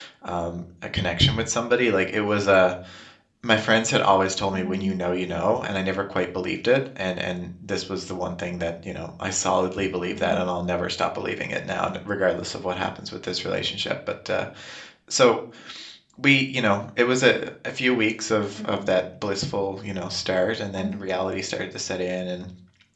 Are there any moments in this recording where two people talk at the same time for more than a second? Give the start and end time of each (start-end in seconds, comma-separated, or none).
none